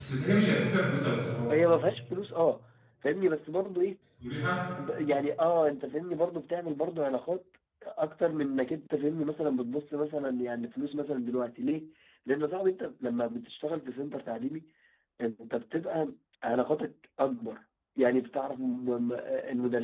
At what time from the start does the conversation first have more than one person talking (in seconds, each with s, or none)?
none